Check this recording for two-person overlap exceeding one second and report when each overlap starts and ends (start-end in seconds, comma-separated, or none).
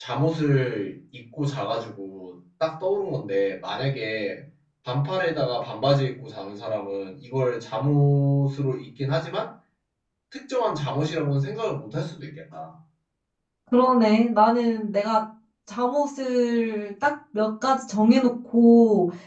none